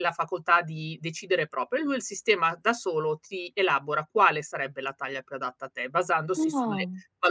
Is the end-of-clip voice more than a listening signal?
No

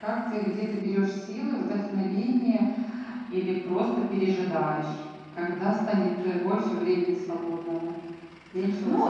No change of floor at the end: No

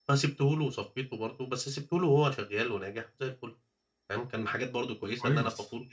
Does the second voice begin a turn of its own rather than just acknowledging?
No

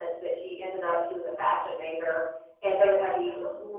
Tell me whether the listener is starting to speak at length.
No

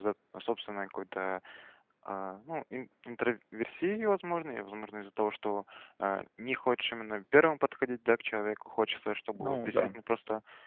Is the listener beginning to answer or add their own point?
No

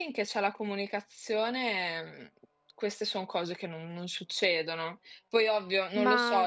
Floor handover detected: No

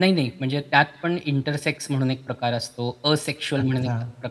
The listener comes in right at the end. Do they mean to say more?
No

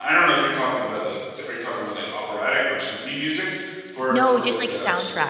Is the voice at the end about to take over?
Yes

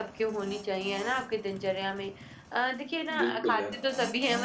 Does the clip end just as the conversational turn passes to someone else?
No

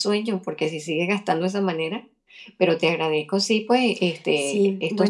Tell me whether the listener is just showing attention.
No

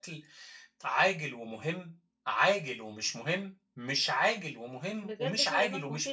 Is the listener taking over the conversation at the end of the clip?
Yes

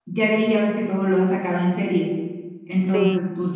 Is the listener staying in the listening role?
Yes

